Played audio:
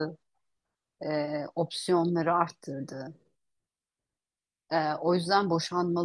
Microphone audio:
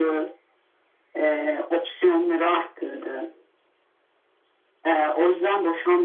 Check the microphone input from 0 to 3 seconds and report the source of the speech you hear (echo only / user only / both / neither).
echo only